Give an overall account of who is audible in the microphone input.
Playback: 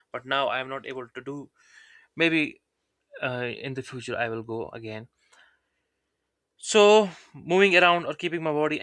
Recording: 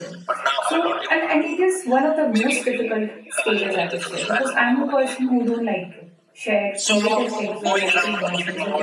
both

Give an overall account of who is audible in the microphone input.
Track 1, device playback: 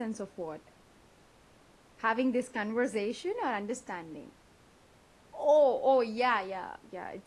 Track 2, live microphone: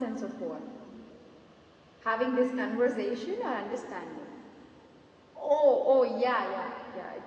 echo only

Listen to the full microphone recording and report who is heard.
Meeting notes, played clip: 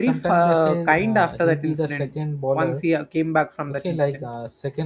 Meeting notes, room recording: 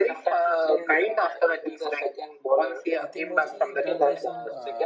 both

